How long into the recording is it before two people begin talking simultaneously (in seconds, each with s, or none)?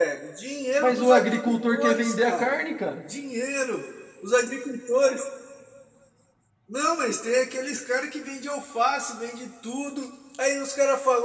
0.8 s